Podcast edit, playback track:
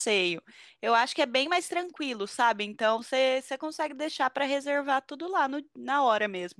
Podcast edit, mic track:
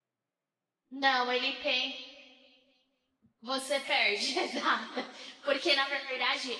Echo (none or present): none